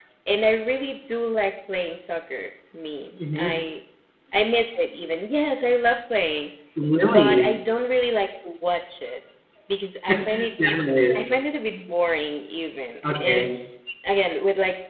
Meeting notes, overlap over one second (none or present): none